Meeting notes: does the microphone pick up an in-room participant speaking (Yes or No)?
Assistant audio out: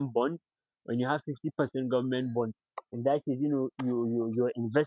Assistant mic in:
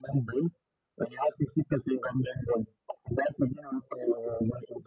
No